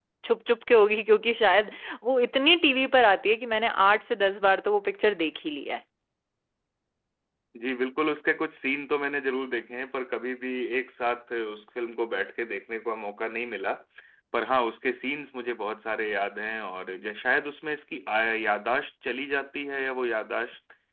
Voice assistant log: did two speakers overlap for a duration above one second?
No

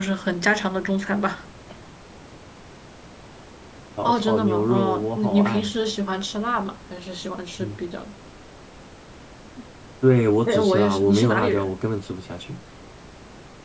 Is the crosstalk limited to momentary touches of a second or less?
No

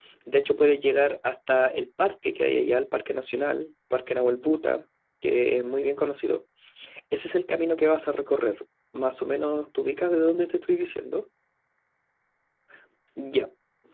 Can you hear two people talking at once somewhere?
No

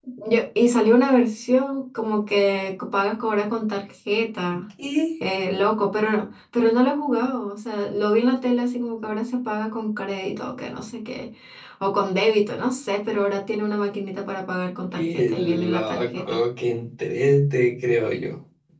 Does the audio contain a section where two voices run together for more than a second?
Yes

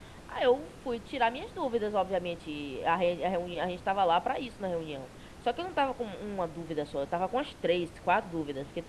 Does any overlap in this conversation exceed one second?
No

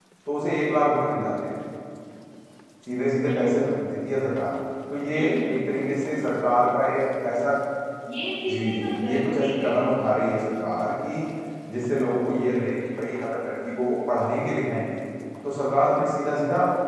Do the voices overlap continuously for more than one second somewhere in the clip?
Yes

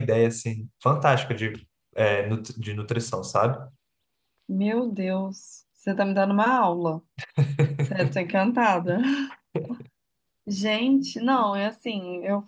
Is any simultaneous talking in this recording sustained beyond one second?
No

